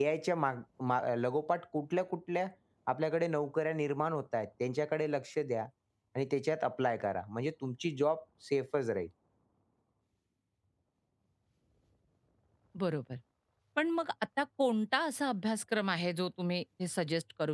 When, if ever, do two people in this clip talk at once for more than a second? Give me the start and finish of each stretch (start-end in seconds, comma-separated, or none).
none